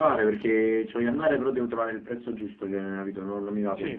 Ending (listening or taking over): taking over